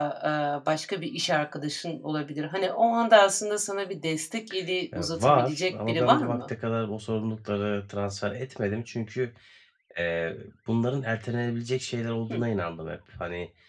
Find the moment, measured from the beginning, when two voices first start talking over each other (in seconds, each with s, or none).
4.9 s